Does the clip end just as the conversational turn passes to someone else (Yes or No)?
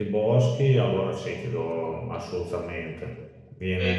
Yes